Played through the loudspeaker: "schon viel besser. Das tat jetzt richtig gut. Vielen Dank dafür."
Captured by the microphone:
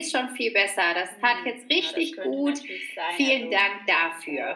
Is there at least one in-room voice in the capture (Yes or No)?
Yes